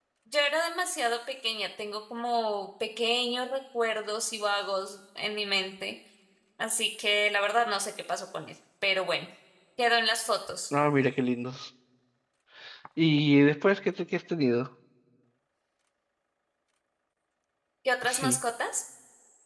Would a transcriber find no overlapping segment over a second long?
Yes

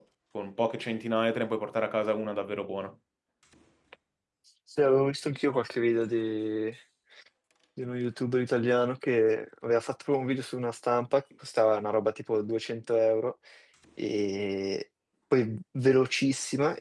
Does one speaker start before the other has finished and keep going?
No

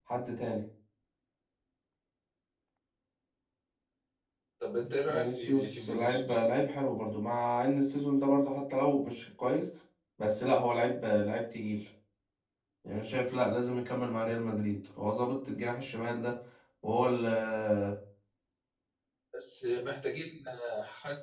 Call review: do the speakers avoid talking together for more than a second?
No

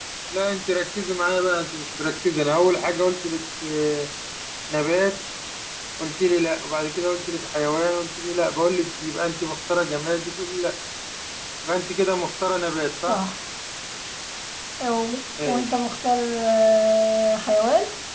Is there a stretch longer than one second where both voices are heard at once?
No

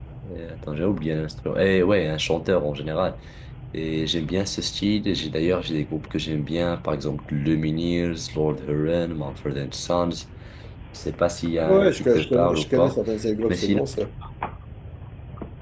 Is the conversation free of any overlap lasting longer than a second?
No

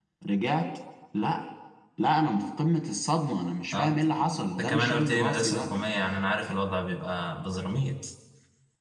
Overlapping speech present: Yes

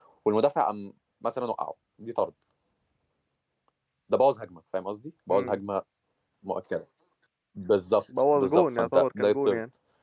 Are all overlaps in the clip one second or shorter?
No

